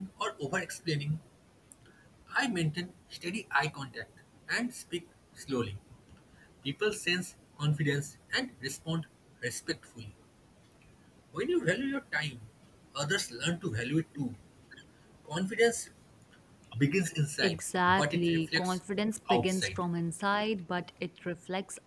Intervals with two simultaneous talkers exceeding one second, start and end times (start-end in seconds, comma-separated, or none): 17.4-18.8